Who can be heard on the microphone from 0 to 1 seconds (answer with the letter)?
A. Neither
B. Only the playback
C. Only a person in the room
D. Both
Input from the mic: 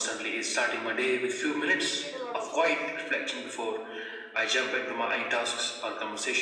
B